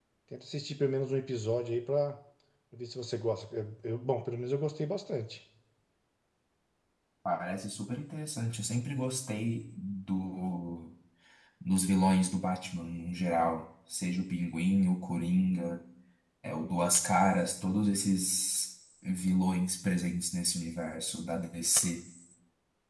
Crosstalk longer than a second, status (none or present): none